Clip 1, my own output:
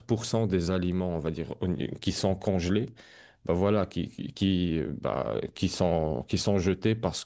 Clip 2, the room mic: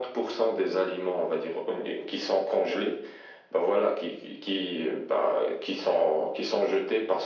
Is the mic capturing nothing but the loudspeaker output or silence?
Yes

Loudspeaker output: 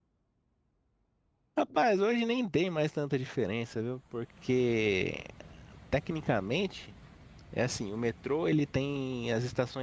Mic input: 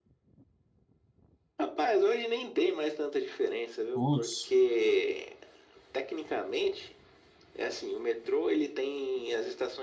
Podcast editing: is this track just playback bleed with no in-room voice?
No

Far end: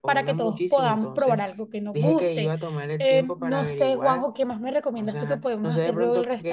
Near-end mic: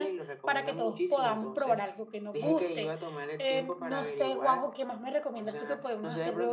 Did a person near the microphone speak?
No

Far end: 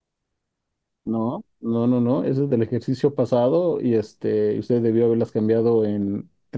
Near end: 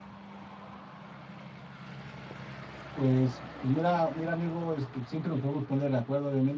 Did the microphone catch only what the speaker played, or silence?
No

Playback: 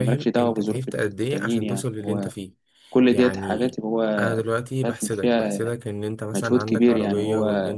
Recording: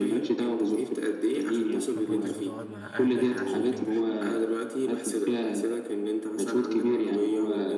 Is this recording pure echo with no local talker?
No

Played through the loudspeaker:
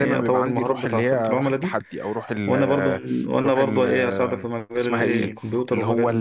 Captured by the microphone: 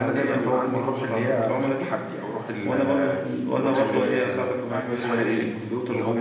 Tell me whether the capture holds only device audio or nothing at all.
No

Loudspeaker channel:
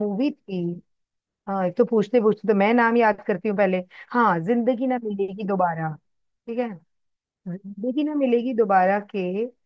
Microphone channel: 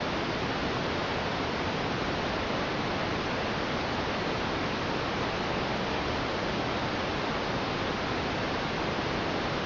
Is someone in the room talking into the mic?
No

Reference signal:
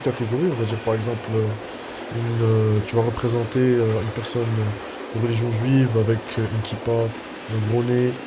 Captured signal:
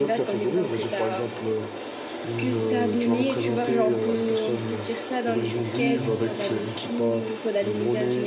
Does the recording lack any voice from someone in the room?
No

